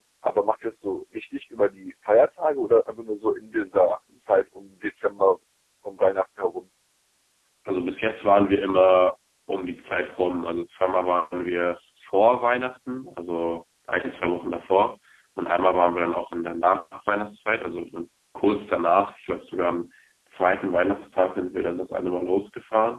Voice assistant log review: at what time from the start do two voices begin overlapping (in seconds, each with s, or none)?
none